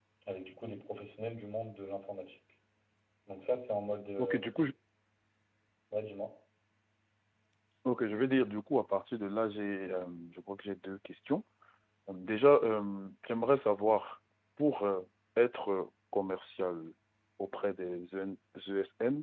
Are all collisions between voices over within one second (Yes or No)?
Yes